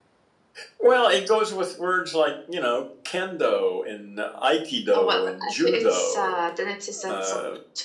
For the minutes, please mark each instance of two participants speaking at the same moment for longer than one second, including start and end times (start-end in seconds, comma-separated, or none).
4.9-6.4